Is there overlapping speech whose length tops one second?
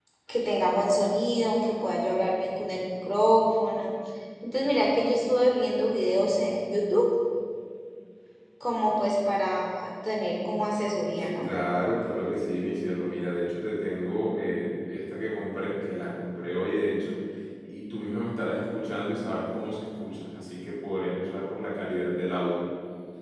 No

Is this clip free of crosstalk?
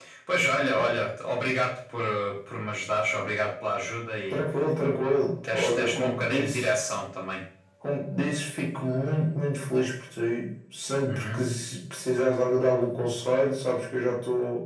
No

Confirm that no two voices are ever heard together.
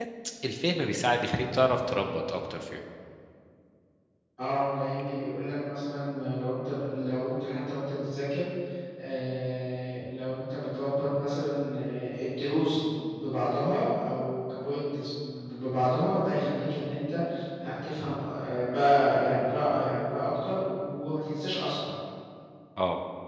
Yes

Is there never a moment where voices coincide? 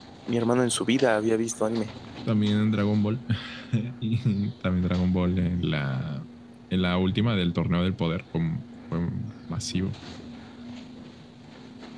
Yes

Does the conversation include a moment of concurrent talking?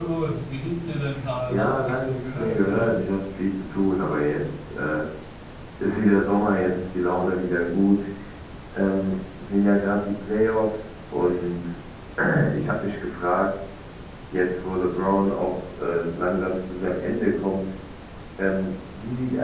Yes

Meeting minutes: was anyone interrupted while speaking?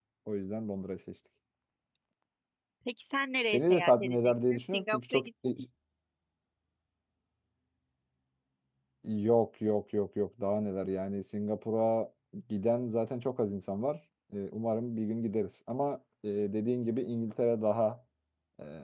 Yes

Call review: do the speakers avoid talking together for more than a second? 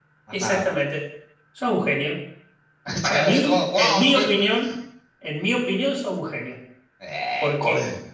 No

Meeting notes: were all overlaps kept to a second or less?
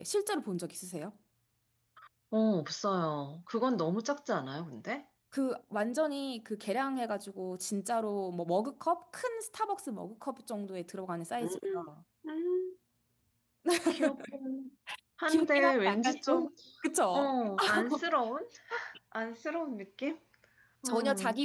No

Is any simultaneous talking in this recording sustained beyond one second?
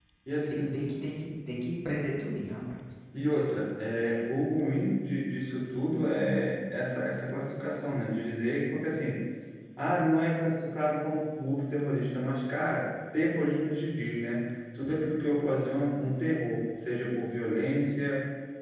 No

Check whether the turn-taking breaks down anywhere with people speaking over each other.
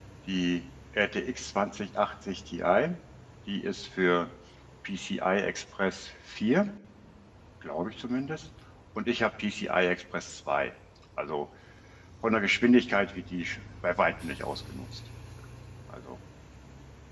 No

